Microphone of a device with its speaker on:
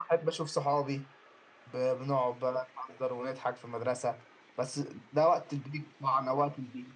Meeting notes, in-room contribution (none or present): none